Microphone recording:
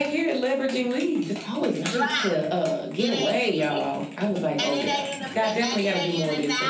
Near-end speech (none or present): present